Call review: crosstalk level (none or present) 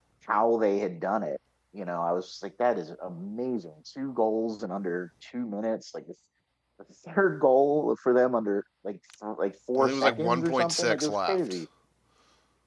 present